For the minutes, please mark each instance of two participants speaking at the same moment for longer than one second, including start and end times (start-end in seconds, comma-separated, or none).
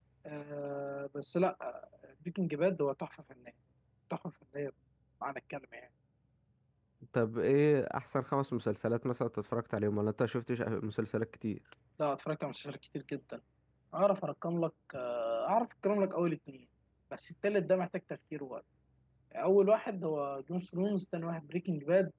none